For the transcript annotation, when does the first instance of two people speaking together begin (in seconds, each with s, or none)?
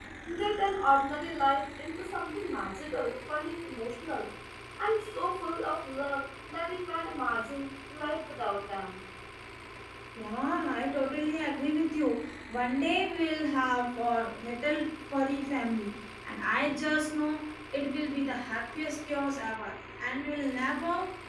none